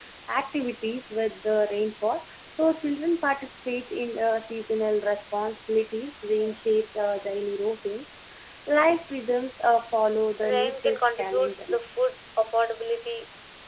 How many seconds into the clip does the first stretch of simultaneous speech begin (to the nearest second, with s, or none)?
10 s